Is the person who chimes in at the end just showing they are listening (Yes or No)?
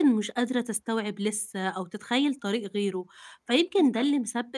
Yes